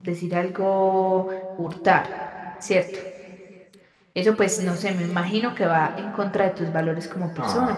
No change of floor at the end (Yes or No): No